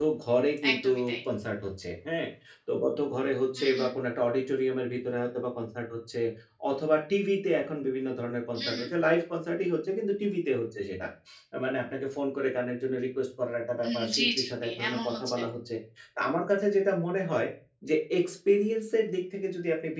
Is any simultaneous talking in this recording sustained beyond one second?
Yes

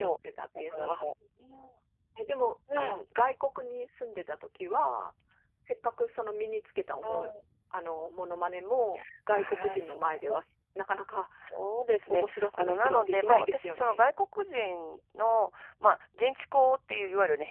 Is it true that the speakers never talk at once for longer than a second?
No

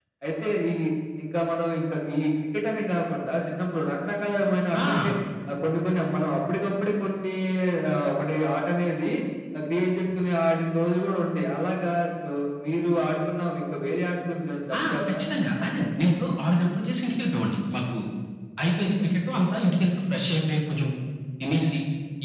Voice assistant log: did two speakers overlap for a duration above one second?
No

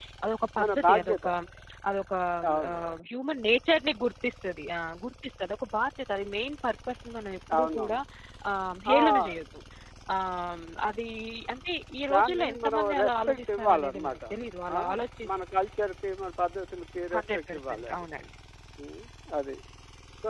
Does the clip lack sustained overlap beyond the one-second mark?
No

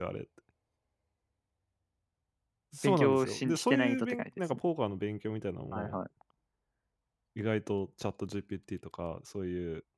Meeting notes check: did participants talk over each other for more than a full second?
Yes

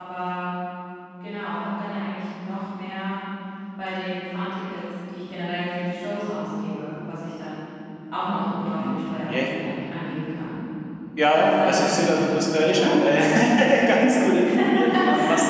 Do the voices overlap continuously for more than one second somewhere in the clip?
Yes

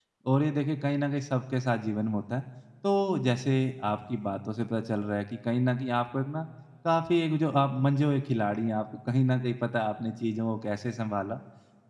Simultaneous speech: No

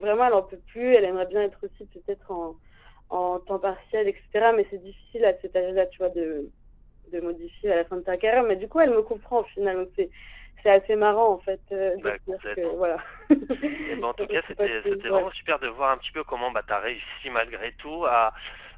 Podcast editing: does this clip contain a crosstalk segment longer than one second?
Yes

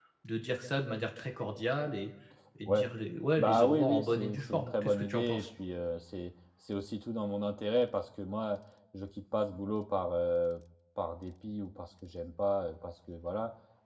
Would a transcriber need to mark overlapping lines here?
Yes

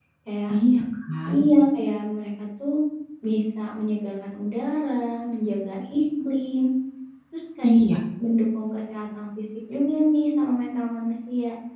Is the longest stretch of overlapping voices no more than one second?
Yes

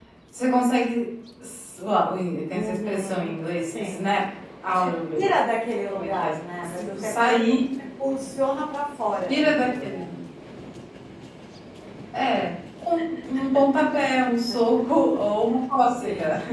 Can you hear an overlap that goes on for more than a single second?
Yes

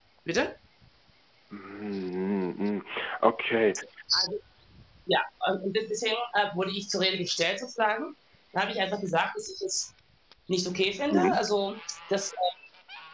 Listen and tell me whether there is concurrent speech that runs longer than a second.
No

